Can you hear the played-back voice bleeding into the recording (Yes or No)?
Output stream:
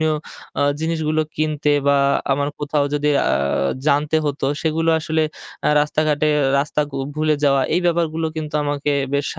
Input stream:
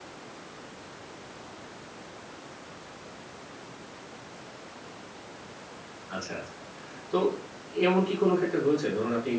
No